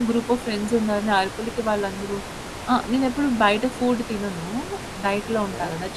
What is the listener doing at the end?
listening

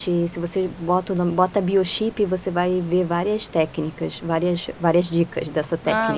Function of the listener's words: taking over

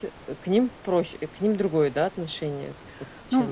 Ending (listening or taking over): taking over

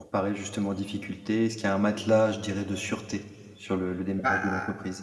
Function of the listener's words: taking over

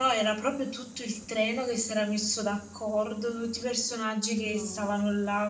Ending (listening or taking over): listening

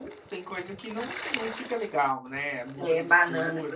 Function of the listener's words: taking over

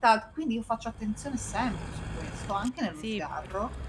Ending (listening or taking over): taking over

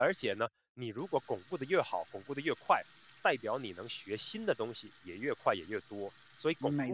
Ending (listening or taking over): taking over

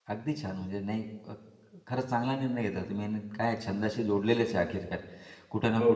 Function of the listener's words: listening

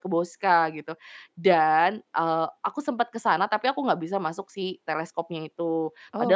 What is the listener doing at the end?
listening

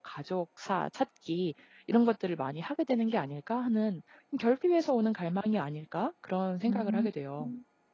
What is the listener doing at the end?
taking over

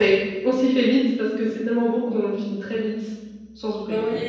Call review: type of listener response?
taking over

